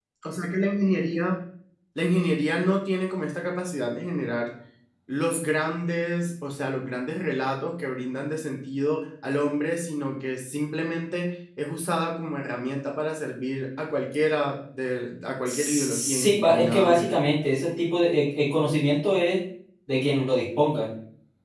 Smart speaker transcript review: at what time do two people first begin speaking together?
15.4 s

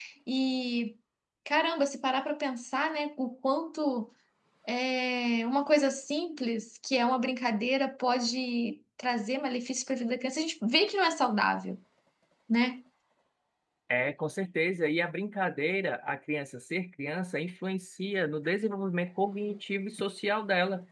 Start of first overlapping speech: none

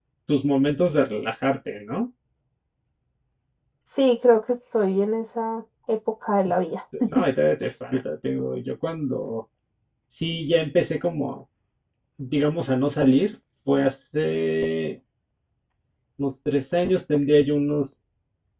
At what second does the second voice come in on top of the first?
none

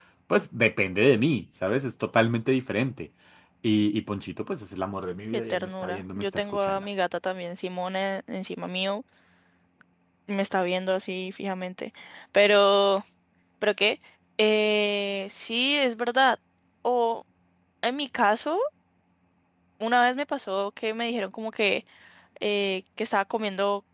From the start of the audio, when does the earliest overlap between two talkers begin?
5.3 s

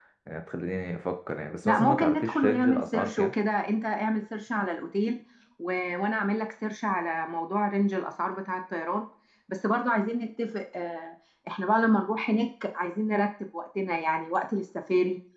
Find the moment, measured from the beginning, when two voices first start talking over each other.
1.6 s

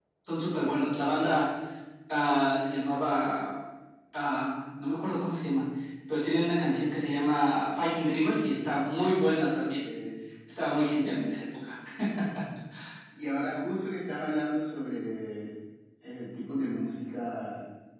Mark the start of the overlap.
none

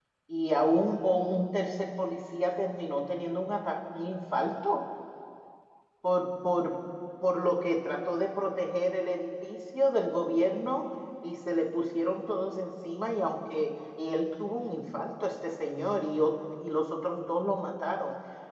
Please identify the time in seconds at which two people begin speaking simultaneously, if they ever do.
none

